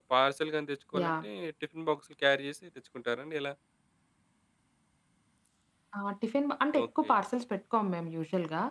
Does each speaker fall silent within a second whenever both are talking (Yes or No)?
Yes